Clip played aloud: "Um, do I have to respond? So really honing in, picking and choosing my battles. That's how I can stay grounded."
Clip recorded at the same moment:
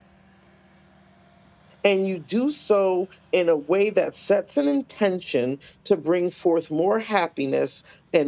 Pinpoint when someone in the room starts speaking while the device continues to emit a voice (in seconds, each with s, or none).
1.8 s